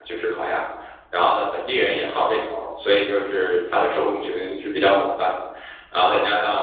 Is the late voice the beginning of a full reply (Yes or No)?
No